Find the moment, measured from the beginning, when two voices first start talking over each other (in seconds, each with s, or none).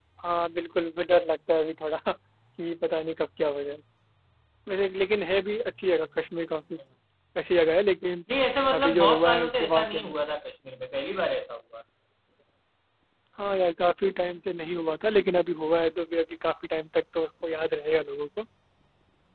8.7 s